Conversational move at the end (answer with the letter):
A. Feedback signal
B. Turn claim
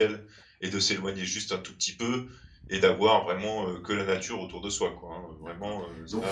B